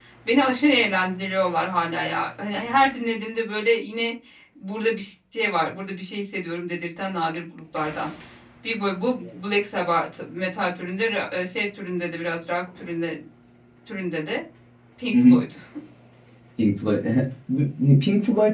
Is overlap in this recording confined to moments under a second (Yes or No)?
Yes